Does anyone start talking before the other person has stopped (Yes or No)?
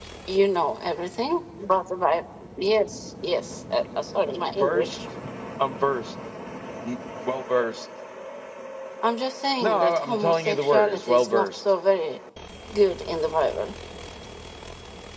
Yes